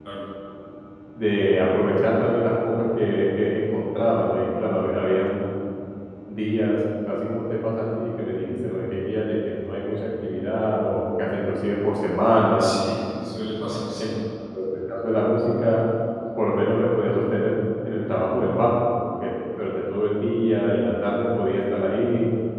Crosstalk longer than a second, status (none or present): none